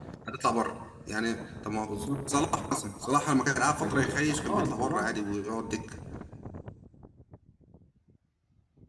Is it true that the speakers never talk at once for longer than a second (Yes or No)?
No